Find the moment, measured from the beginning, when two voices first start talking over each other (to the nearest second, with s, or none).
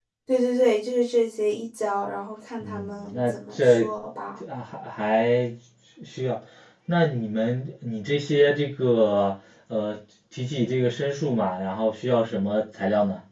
3 s